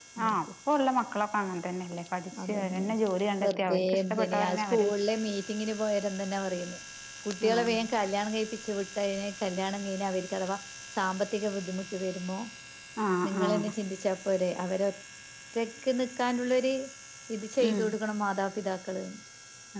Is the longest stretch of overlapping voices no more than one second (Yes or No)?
No